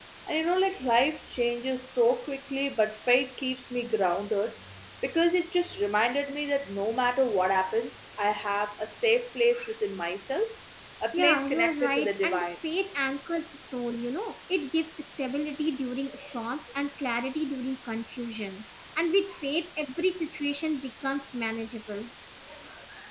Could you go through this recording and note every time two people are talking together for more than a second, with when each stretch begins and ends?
11.1-12.5

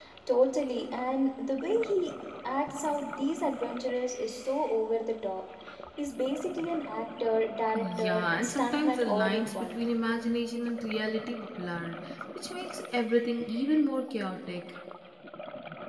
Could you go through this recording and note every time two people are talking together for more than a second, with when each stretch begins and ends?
7.7-9.8

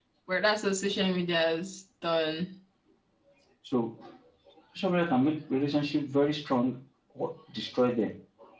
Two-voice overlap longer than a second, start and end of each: none

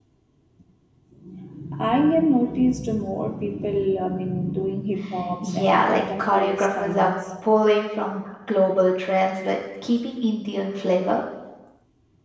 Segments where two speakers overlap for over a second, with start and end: 5.4-7.1

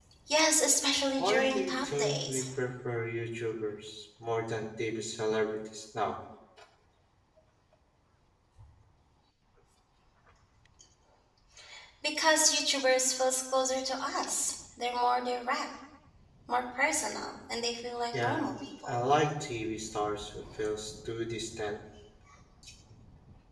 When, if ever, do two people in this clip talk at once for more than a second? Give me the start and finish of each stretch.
1.2-2.5

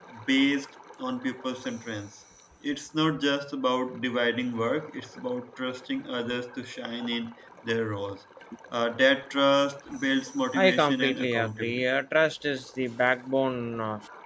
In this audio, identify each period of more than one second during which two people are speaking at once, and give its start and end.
10.5-11.8

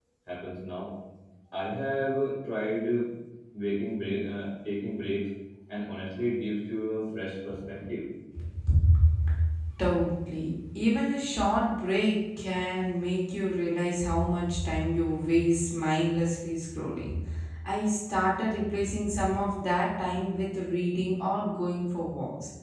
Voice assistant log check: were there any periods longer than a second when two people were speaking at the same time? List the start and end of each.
none

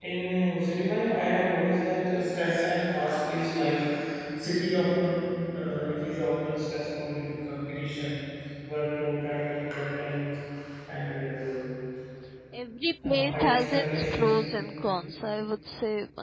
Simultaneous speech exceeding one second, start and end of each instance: 13.0-14.3

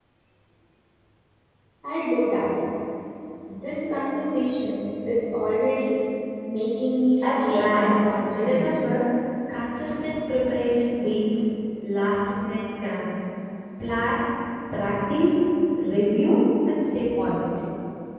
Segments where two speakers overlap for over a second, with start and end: 7.4-8.7

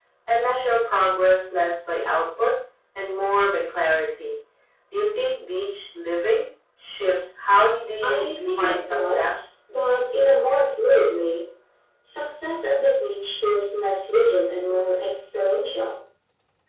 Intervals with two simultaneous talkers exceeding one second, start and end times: 8.0-9.4

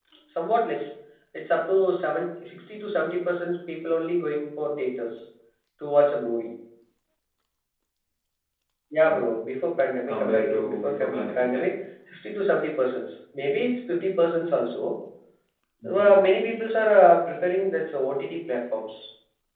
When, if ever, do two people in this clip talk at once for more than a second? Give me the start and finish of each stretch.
10.1-11.7

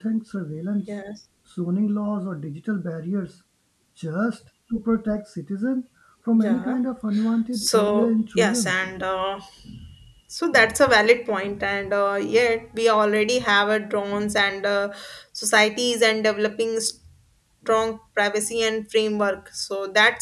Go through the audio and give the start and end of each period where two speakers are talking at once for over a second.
7.5-8.8

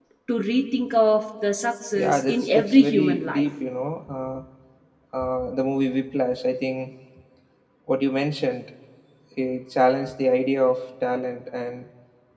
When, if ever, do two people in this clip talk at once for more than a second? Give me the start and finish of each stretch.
1.9-3.5

